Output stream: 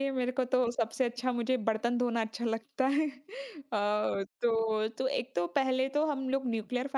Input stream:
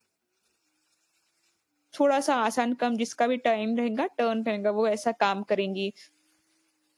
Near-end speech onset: 2 s

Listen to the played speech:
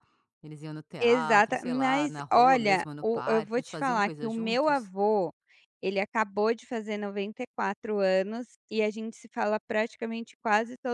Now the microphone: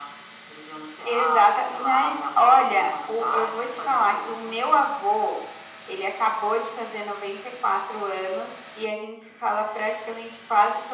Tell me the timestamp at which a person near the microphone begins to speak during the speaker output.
none

